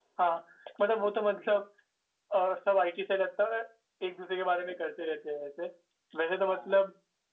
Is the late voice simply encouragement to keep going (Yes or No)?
Yes